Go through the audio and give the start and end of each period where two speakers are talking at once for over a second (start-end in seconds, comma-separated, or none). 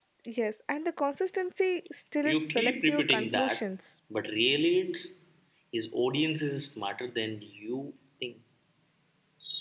2.2-3.6